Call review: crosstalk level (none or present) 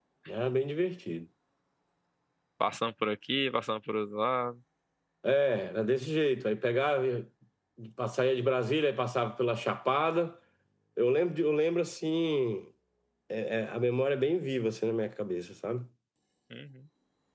none